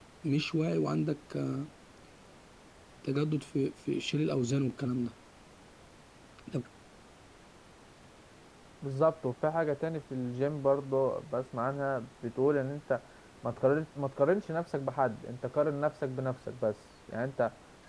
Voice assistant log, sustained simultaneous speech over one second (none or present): none